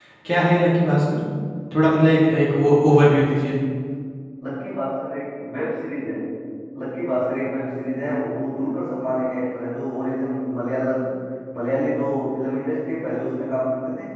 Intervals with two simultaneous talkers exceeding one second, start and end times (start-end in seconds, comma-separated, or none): none